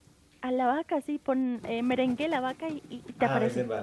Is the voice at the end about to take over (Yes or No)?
Yes